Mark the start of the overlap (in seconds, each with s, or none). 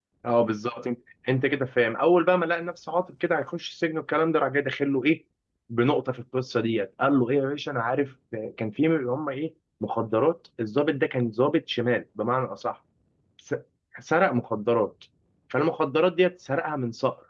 none